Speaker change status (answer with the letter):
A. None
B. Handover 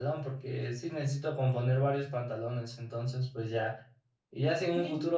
A